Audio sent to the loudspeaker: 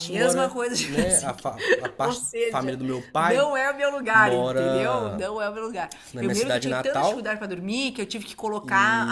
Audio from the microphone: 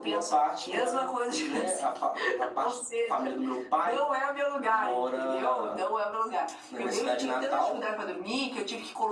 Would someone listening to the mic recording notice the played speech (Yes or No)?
Yes